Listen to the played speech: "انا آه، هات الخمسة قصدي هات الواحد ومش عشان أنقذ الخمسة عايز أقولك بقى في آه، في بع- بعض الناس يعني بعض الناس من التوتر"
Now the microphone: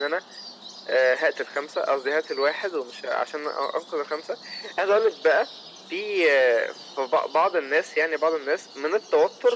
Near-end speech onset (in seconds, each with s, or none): none